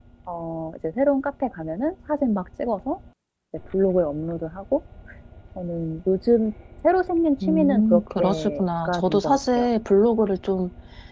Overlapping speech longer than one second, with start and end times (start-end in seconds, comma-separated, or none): 7.5-9.7